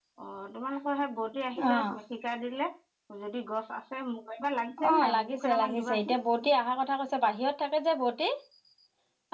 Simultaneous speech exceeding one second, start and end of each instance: 4.9-6.2

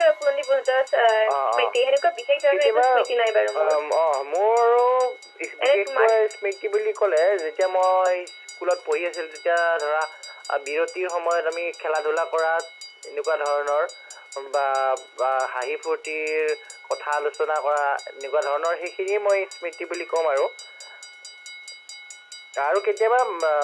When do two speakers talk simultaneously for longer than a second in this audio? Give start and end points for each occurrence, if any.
none

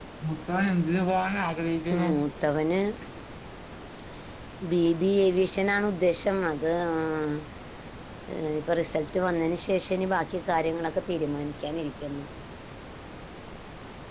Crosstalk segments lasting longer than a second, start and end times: none

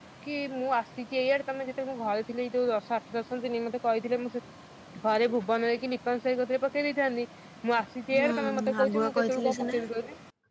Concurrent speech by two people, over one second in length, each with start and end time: 8.1-9.8

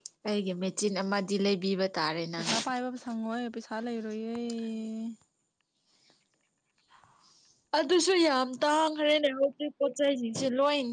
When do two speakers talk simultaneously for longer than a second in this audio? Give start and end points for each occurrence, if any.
none

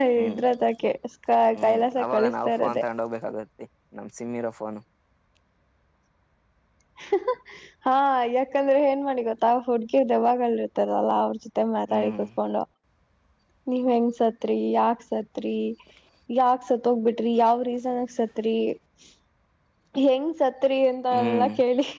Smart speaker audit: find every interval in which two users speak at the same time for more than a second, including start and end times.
1.6-2.8

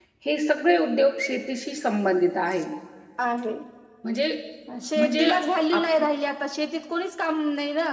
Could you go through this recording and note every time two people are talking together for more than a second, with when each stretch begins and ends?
none

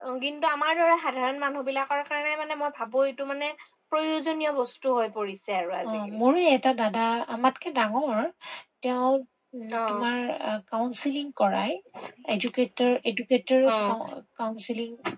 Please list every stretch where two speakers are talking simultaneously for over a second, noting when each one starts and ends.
none

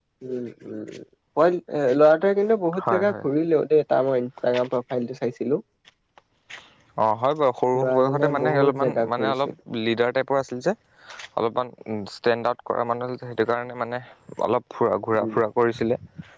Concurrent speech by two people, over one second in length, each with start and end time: 7.8-9.5

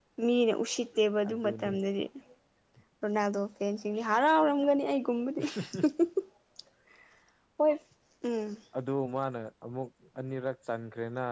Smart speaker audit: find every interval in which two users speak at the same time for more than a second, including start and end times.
none

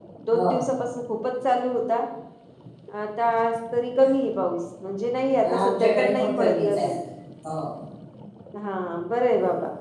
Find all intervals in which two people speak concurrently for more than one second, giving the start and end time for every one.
5.6-7.0

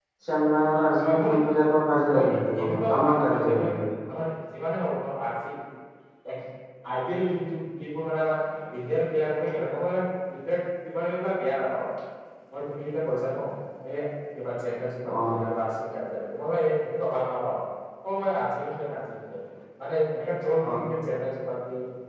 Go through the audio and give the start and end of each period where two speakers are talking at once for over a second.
2.1-3.7

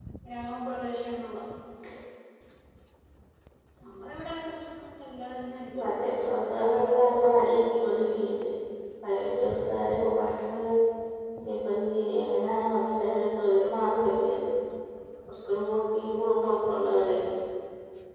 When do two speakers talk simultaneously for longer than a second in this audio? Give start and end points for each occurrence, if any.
5.8-7.5

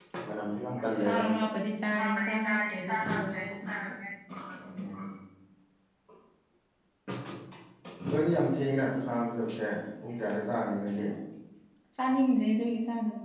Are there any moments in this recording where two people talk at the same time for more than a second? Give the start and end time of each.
2.0-3.9

